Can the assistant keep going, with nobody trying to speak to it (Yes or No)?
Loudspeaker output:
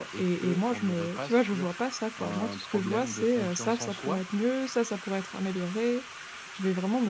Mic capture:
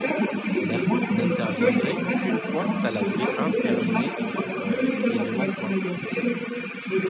No